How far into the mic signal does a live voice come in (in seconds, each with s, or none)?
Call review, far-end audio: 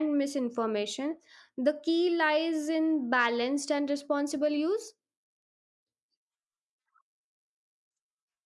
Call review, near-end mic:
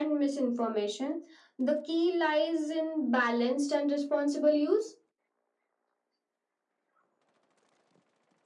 none